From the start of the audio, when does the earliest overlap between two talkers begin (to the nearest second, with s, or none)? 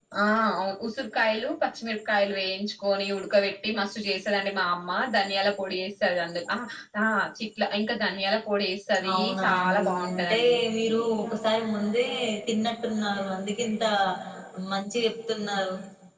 9 s